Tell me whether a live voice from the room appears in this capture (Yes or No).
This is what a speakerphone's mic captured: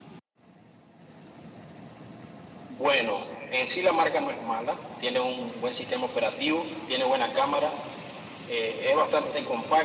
No